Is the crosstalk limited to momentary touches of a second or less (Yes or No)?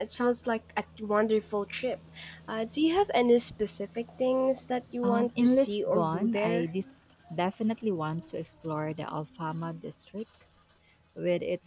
No